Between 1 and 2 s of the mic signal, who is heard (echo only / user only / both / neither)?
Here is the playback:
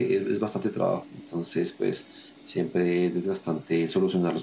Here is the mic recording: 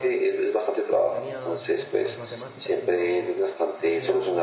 both